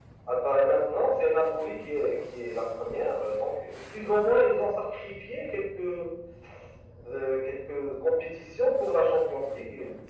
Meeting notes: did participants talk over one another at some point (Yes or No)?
No